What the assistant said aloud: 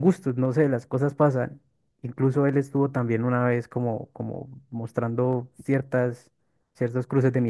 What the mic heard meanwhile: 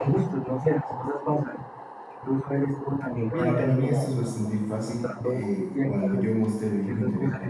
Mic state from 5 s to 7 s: both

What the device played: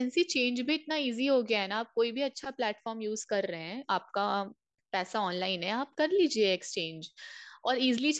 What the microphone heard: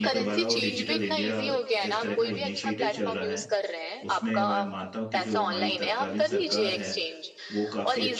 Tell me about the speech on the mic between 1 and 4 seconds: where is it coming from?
both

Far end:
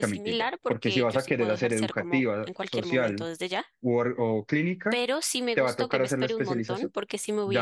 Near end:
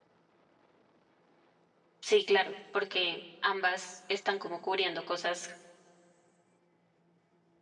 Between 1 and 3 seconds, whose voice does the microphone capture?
user only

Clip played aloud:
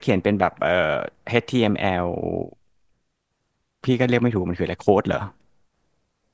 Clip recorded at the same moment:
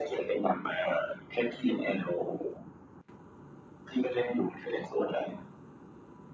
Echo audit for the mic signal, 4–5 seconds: echo only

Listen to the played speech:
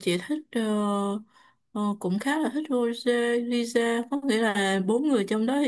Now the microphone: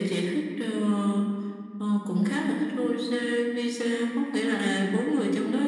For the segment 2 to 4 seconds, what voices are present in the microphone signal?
echo only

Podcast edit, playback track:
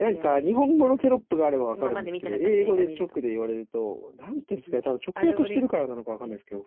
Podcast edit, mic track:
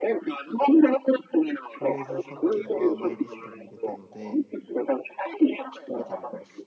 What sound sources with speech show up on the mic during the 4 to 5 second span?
both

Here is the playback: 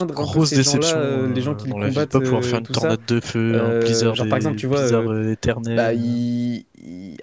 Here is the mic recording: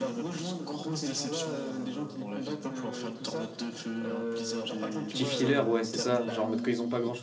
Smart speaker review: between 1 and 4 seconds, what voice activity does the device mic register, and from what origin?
echo only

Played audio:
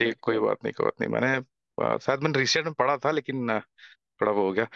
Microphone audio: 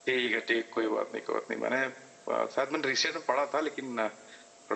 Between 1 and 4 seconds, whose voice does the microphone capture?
echo only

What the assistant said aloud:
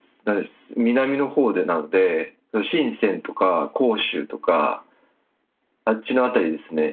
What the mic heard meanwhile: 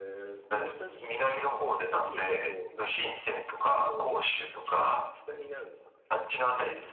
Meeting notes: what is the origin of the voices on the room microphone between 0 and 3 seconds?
both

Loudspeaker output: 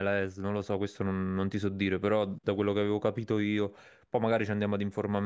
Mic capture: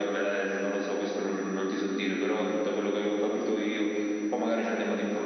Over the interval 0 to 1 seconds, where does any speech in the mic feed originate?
echo only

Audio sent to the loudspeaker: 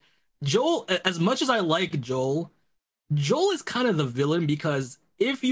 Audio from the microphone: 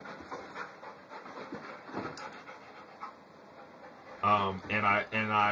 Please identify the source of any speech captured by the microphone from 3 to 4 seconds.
neither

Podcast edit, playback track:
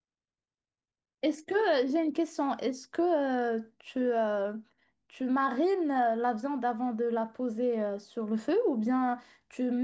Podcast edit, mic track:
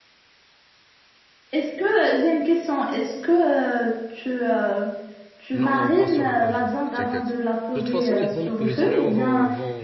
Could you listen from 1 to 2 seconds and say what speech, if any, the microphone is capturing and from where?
echo only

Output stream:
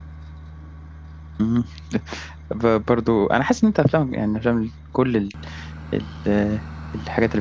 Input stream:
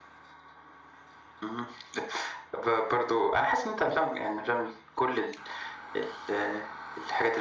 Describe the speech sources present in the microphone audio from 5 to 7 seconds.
echo only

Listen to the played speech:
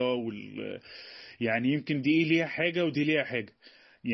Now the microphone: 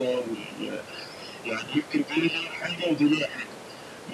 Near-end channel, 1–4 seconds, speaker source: echo only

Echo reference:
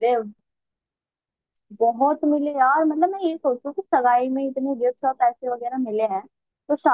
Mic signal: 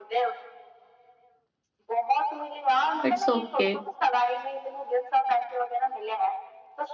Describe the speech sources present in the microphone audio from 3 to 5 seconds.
both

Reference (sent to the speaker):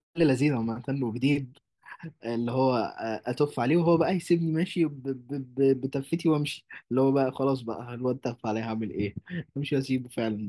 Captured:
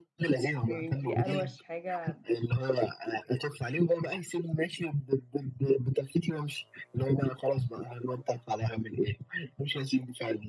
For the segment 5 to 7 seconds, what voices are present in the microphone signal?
echo only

